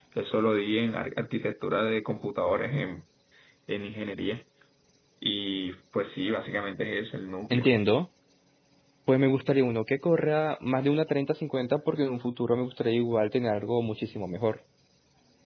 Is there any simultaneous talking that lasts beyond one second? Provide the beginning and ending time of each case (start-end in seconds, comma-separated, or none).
none